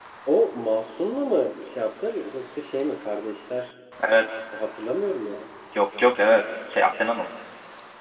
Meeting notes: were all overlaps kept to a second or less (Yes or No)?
Yes